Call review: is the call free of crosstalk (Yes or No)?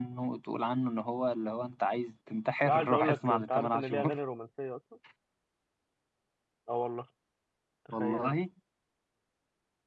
No